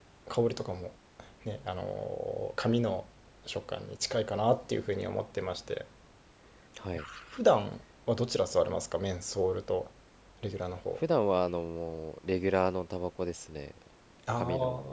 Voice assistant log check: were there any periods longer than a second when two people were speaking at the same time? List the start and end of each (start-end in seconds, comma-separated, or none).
none